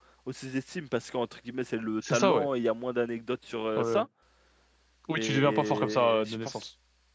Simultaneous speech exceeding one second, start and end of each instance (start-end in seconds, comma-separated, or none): 5.2-6.6